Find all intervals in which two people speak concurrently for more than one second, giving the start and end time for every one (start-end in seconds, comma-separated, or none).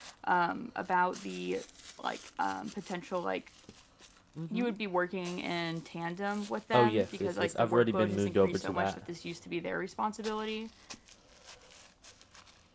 6.7-9.0